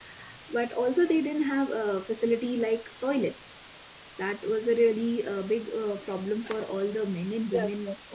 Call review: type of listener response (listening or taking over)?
taking over